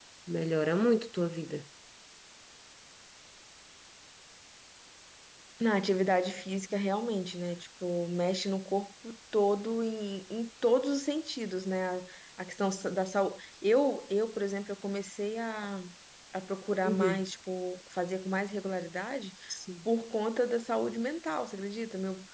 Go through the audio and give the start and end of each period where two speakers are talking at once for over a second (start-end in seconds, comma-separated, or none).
none